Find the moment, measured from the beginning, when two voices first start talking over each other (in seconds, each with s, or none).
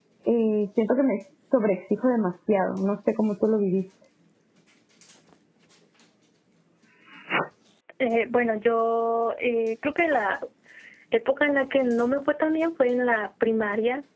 none